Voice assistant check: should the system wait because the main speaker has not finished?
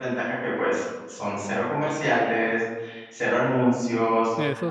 Yes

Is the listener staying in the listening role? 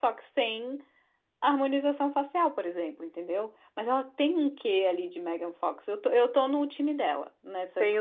No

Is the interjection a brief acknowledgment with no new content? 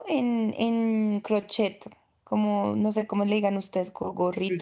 No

